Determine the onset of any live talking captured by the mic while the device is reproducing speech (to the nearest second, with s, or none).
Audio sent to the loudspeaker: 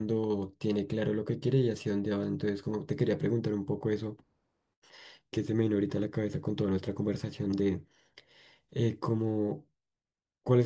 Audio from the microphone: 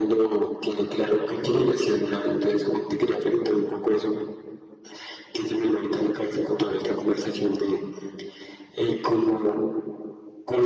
none